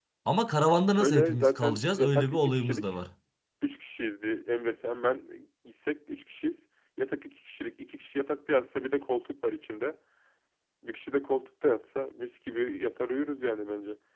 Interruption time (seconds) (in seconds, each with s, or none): 0.9 s